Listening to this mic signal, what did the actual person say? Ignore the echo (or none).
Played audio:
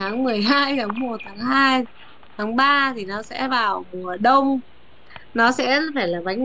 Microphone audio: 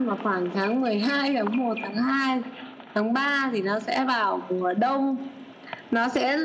none